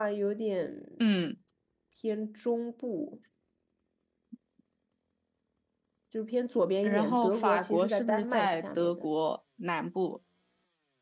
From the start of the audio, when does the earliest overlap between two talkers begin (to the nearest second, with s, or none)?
7 s